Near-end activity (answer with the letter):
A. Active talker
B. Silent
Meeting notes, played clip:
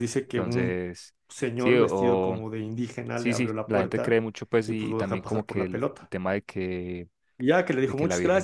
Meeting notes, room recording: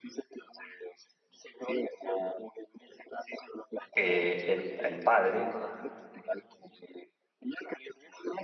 A